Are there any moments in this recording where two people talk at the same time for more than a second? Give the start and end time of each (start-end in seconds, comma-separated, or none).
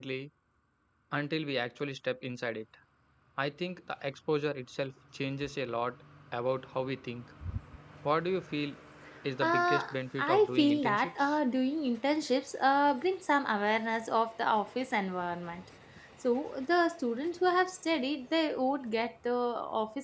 9.4-11.4